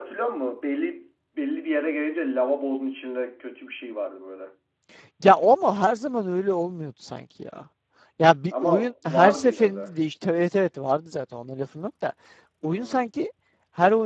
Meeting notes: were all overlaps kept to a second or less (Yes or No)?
No